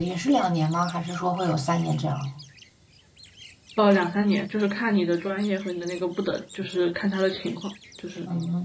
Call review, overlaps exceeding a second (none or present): none